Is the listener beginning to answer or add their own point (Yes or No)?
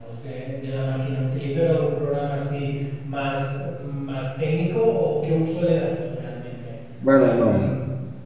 Yes